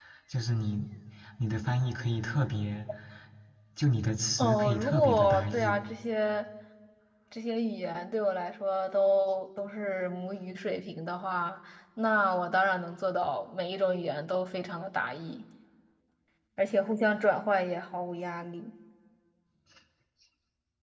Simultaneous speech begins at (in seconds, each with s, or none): 4.4 s